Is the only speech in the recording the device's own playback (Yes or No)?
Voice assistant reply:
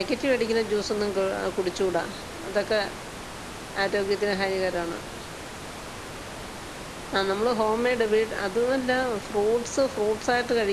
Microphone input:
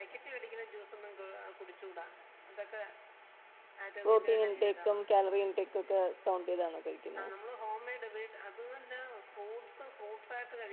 No